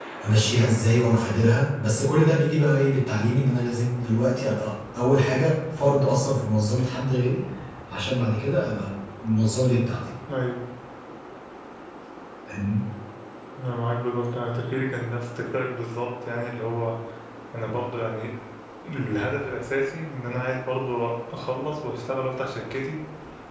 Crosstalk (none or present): none